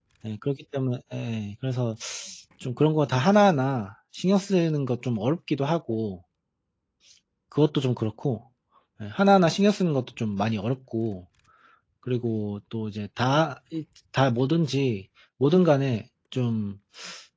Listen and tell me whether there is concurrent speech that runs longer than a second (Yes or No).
No